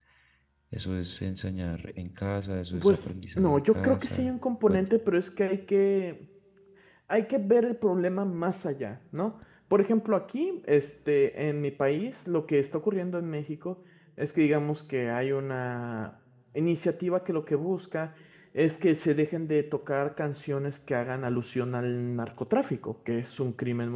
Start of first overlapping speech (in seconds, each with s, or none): 2.7 s